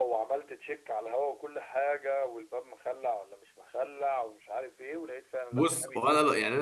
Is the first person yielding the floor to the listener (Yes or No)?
Yes